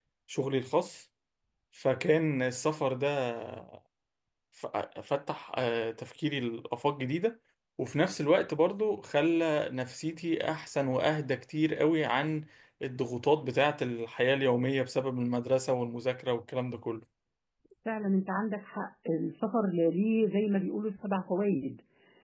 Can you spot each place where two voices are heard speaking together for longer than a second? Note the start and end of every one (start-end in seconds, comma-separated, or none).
none